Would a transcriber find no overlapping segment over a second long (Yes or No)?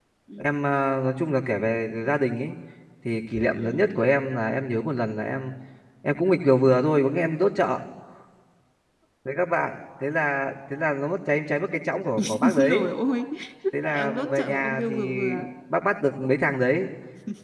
No